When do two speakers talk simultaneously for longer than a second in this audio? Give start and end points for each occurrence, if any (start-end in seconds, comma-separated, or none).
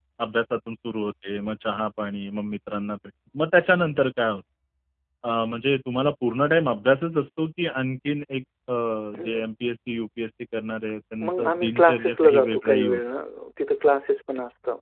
11.3-13.0